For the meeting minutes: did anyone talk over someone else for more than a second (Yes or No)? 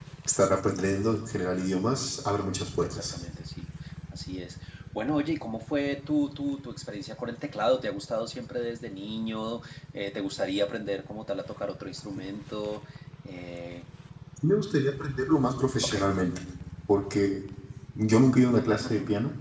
No